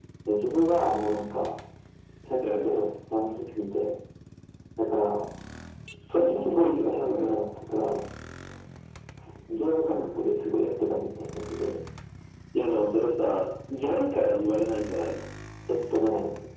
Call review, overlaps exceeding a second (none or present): present